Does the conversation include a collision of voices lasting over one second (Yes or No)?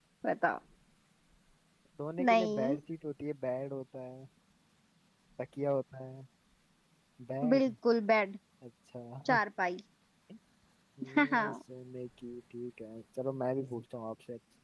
No